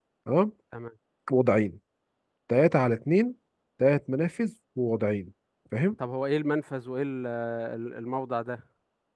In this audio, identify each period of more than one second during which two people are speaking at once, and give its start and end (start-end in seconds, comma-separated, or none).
none